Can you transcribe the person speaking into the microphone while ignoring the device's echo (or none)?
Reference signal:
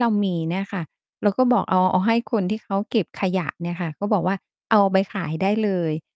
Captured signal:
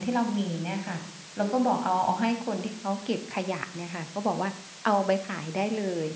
none